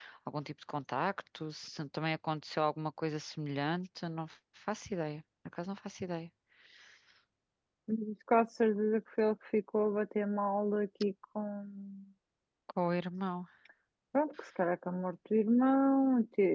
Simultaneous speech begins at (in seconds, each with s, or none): none